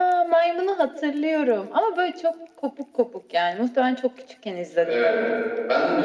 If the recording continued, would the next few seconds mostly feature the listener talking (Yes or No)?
Yes